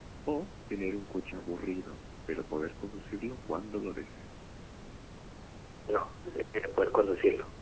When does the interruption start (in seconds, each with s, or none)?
none